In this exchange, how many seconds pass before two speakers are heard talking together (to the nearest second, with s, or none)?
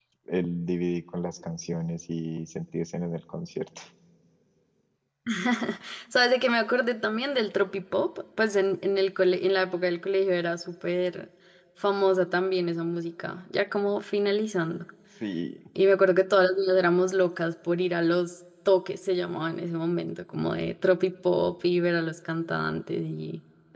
none